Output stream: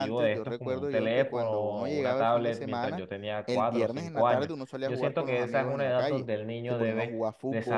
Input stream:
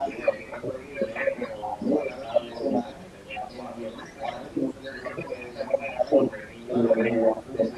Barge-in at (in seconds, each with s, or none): 6.6 s